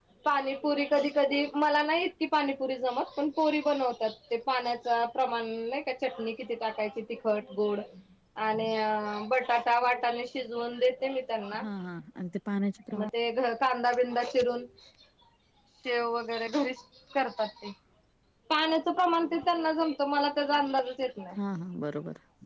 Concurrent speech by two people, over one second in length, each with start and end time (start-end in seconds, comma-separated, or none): none